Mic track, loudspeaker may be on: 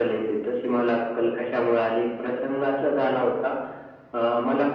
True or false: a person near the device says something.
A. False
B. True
A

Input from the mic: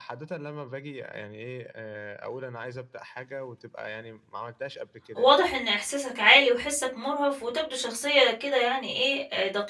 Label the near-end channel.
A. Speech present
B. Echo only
A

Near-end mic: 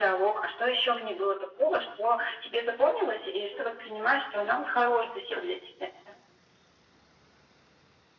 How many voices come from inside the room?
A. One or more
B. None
B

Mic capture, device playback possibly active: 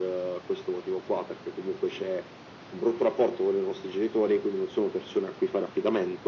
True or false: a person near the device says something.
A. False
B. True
A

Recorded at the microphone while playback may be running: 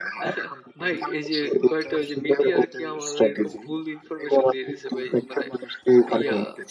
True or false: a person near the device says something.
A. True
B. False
A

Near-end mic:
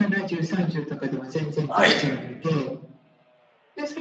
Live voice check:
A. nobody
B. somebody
B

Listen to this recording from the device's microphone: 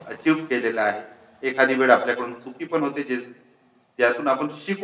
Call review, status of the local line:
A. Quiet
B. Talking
B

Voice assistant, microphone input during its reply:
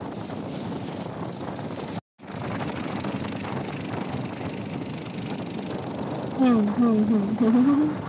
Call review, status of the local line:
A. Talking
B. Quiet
A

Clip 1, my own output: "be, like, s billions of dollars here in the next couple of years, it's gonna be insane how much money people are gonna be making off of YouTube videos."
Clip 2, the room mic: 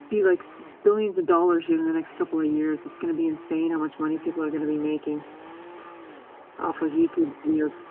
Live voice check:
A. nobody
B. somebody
A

